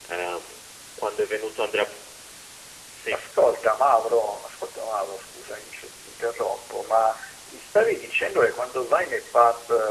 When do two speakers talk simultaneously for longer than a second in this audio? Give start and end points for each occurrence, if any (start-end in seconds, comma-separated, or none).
none